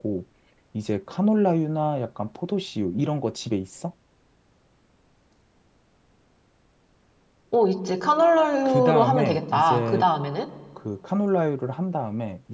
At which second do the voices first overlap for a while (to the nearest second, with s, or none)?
9 s